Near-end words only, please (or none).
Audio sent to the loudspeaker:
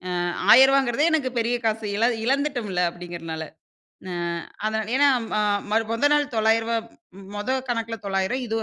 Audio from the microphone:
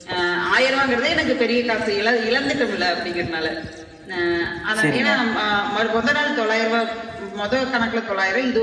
சரிங்க.